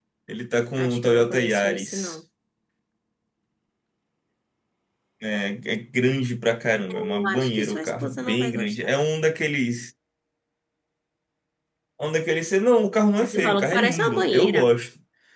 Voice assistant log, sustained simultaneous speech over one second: present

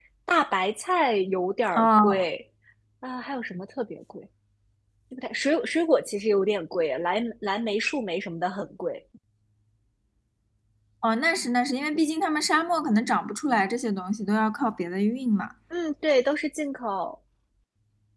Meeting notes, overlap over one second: none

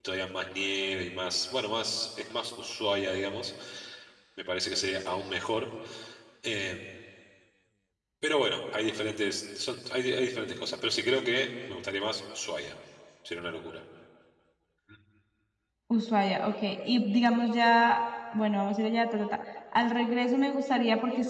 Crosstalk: none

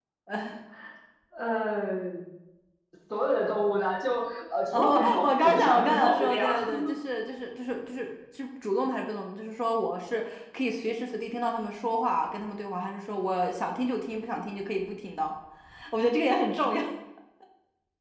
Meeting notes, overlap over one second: present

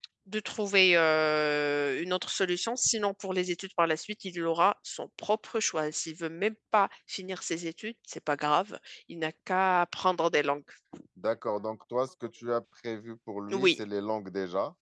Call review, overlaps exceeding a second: none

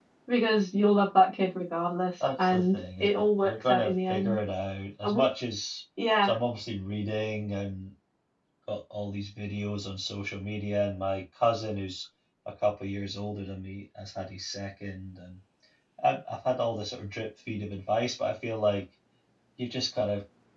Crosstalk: present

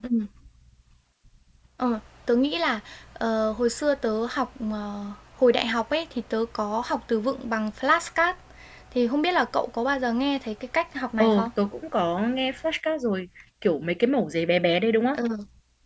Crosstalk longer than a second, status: none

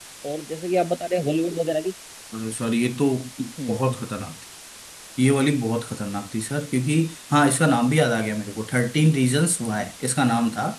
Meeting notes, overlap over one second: none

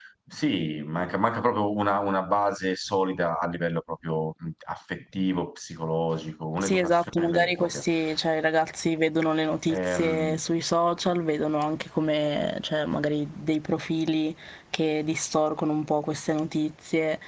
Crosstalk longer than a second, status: present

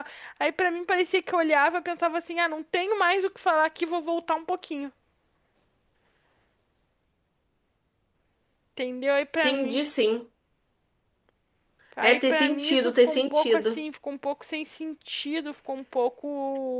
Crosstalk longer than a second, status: present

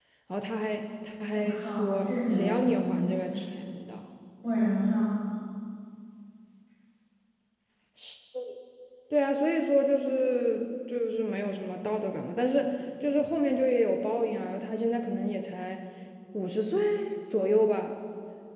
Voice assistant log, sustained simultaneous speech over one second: present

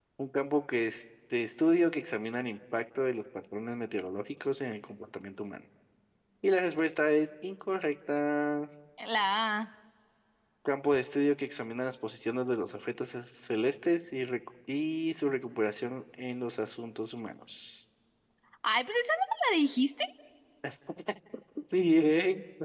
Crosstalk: none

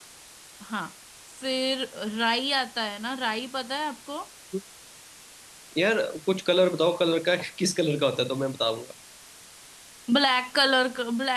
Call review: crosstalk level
none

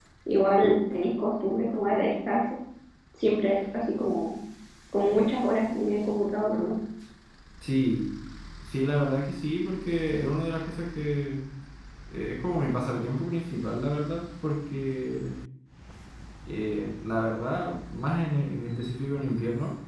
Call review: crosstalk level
none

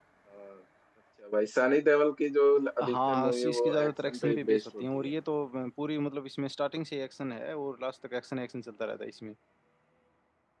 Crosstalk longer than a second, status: present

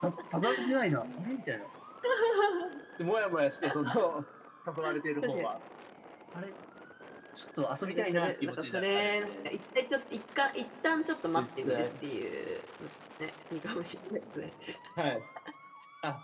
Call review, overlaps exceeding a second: present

